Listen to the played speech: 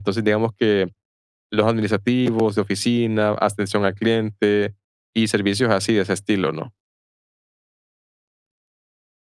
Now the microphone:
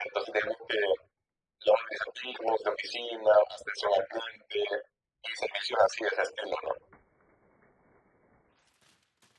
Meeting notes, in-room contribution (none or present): none